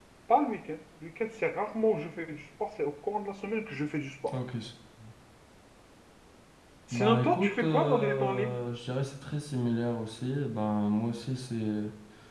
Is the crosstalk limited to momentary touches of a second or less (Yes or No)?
No